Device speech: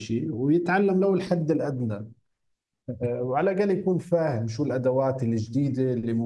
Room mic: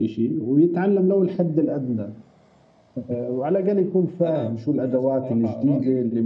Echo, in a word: present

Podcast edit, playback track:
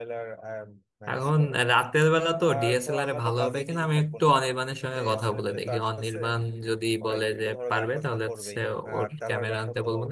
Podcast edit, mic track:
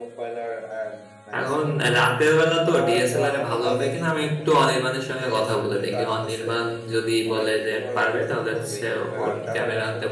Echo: present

